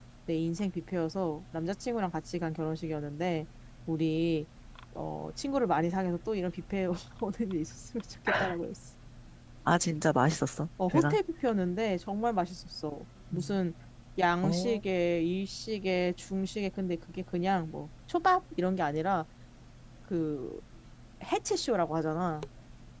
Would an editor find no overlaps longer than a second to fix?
Yes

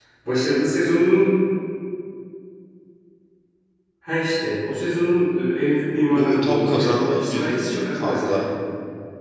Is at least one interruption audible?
Yes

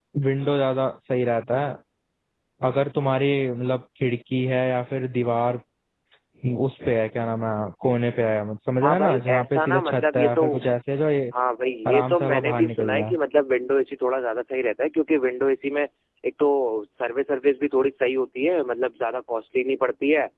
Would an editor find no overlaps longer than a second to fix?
No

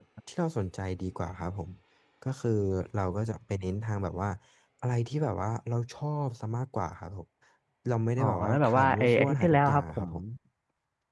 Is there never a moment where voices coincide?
No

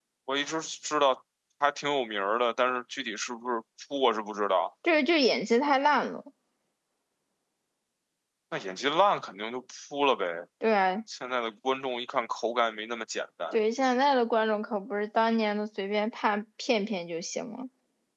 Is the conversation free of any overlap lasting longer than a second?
Yes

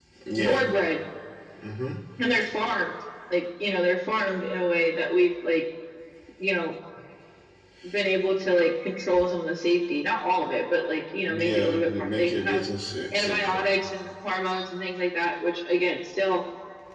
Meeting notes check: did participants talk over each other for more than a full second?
Yes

